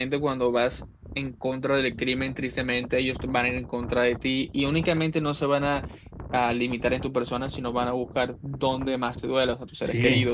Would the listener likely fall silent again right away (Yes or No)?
No